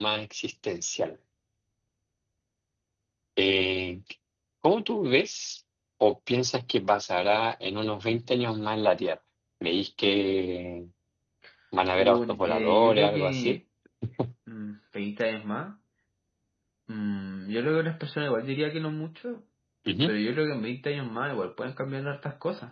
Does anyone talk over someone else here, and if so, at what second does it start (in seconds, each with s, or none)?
11.9 s